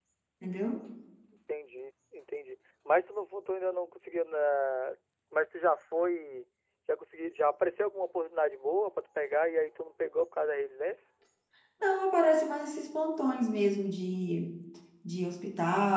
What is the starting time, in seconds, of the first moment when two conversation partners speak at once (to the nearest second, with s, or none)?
none